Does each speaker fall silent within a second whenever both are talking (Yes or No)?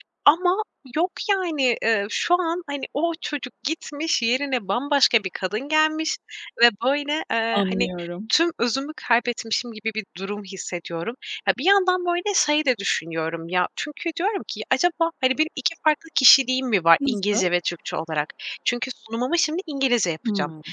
Yes